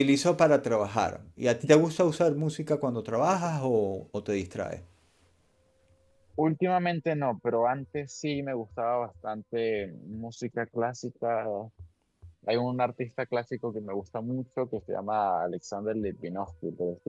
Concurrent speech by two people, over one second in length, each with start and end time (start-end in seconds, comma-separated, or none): none